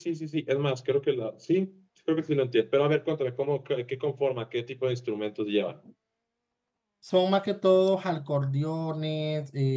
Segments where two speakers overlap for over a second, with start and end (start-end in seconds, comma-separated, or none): none